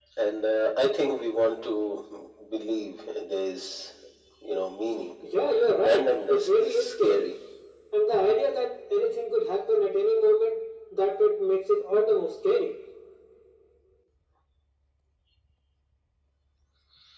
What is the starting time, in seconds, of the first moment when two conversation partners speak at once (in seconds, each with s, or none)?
5.9 s